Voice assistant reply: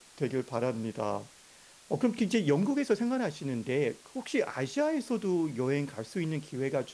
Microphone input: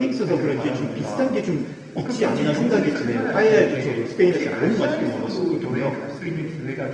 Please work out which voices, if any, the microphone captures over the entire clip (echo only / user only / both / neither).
both